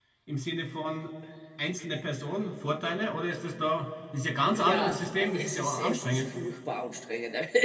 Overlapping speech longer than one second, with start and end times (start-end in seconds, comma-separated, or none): 4.6-6.2